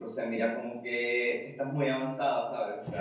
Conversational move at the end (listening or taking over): taking over